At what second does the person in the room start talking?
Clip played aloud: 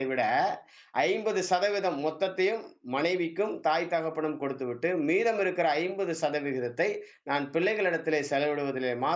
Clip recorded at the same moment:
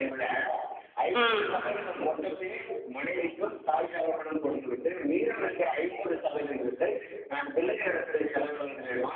1 s

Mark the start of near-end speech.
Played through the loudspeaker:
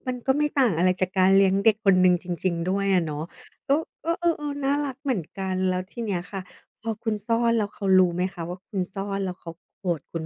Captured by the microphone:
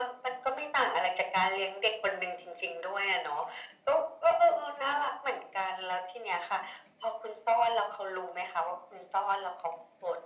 none

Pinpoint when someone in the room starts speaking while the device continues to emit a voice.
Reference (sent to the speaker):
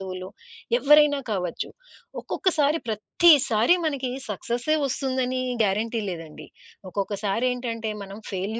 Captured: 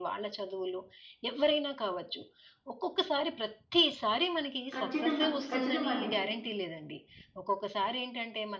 5 s

